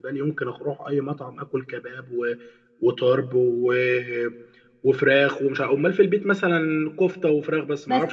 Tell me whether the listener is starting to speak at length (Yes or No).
Yes